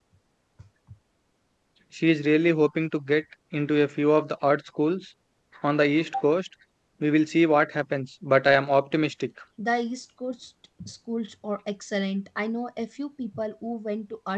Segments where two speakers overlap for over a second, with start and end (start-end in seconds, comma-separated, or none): none